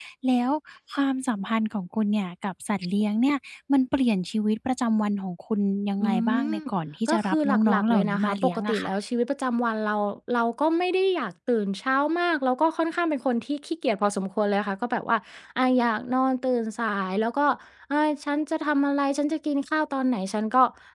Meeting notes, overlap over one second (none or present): present